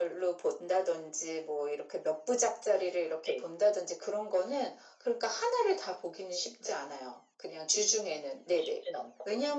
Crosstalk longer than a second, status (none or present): none